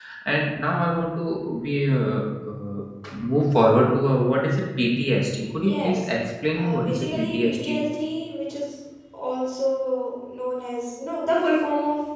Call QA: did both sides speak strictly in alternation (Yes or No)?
No